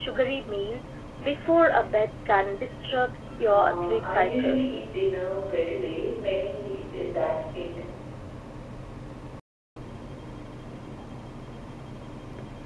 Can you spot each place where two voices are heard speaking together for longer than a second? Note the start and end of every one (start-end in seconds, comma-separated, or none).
3.4-4.8